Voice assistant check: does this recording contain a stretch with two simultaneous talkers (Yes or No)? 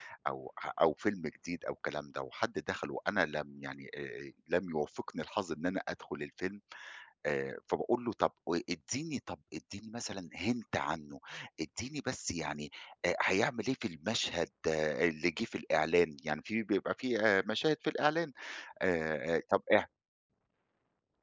No